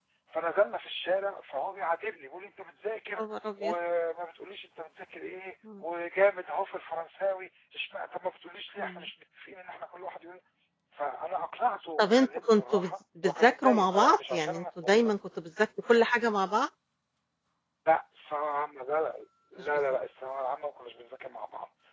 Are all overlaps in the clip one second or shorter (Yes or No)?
No